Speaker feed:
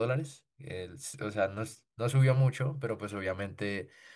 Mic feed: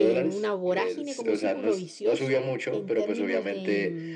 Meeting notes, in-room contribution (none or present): present